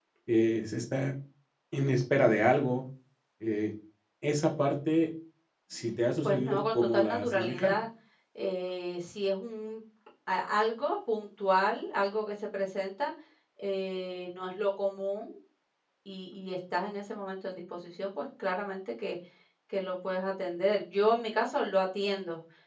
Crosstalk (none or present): present